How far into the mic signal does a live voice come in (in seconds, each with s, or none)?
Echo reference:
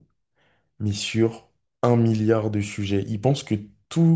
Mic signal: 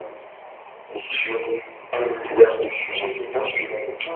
3.0 s